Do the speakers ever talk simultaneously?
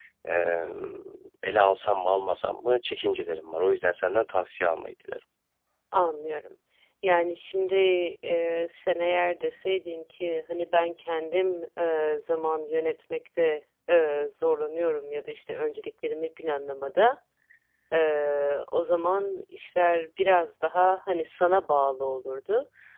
No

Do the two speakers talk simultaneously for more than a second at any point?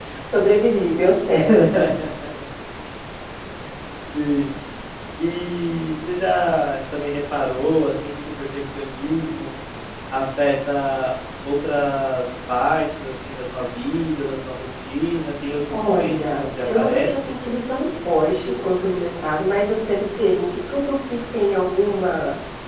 Yes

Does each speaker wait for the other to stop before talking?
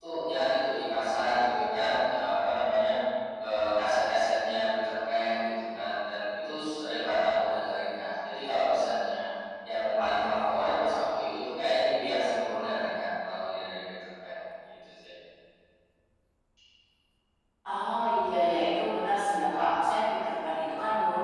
Yes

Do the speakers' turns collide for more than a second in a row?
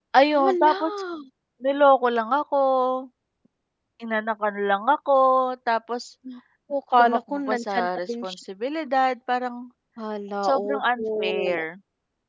Yes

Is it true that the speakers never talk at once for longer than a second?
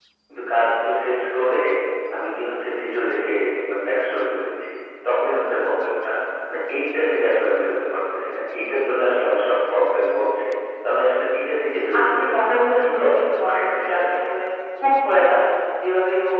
No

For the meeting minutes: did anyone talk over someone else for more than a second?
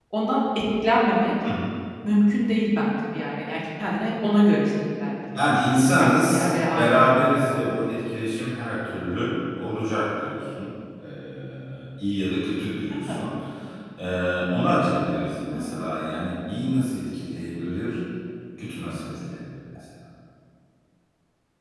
Yes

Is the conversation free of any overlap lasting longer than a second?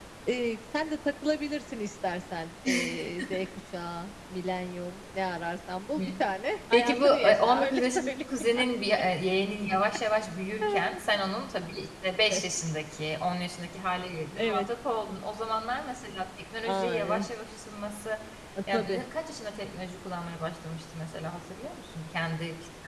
No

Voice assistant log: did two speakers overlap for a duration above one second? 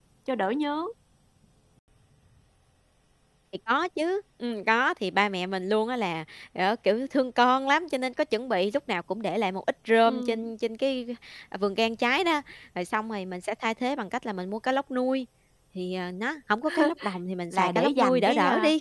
Yes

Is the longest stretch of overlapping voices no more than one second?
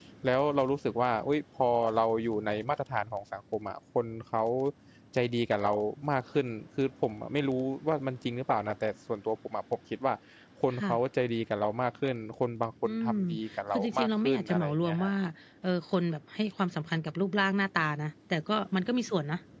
No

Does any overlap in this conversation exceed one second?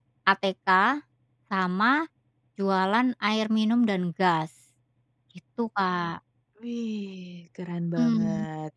No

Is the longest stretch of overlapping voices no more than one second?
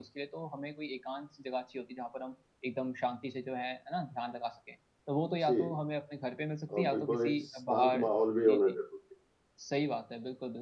No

